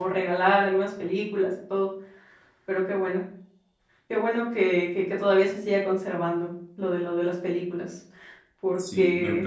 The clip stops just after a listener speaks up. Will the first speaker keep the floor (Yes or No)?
No